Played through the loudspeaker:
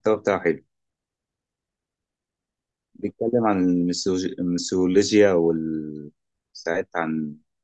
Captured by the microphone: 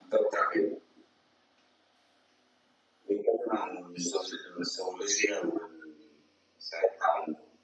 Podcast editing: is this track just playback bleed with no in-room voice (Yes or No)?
Yes